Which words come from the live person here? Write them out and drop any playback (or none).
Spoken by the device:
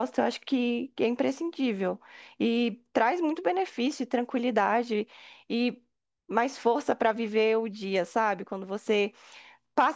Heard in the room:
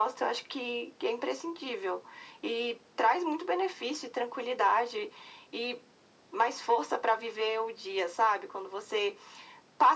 none